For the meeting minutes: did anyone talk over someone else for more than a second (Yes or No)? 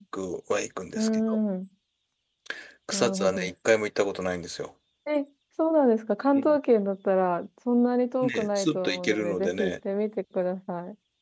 Yes